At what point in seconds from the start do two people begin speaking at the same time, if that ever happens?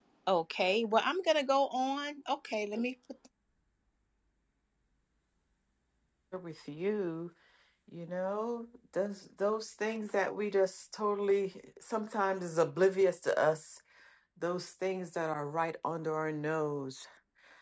none

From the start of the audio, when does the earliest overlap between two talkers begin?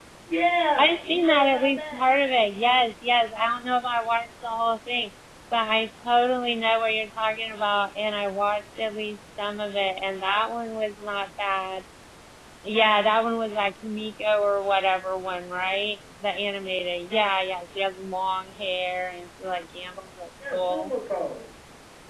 0.8 s

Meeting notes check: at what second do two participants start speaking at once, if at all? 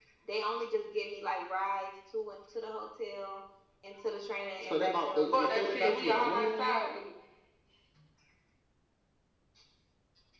4.6 s

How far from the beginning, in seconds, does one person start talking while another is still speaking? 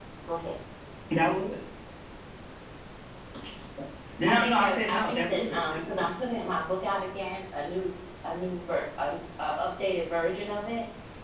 4.3 s

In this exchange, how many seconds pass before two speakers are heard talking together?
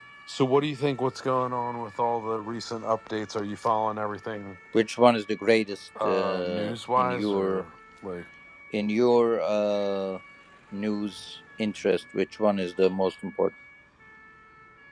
6.0 s

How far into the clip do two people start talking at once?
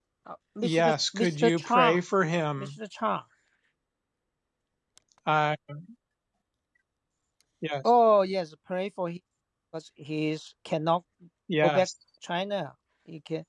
0.6 s

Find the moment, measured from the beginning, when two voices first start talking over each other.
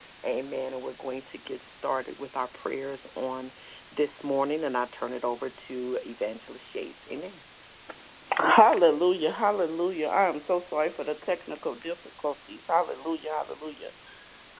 none

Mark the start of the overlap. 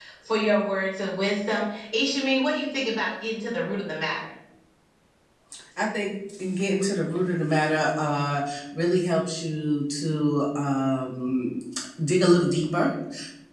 none

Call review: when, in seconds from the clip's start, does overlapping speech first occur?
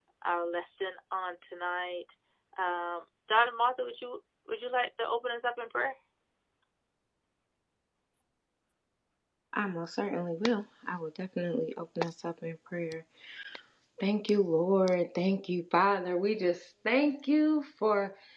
none

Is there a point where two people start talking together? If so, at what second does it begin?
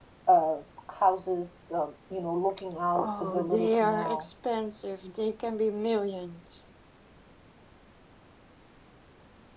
3.0 s

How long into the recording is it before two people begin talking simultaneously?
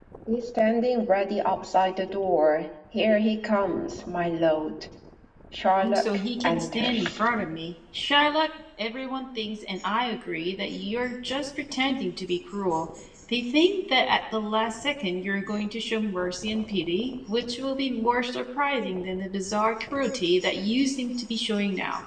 6.0 s

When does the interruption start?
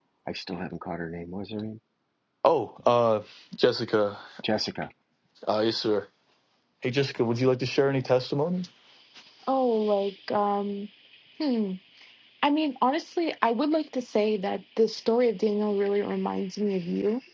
none

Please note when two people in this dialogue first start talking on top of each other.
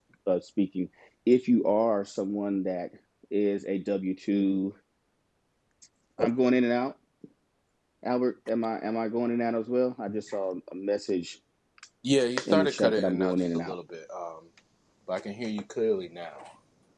12.5 s

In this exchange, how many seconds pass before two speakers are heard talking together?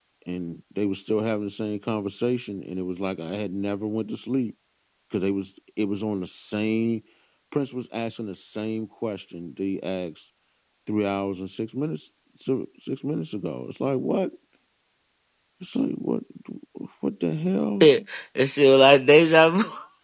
none

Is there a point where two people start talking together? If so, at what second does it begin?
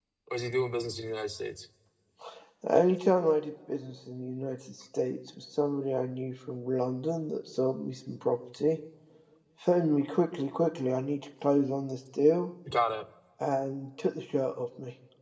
none

